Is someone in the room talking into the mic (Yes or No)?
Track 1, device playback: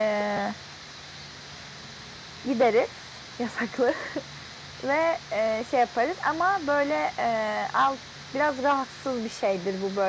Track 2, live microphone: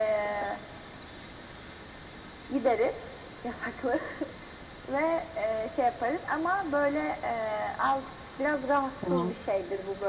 Yes